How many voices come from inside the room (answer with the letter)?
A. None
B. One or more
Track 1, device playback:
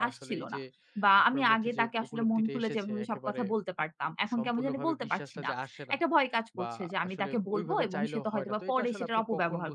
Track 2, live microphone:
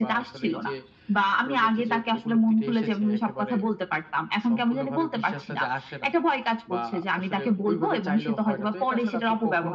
A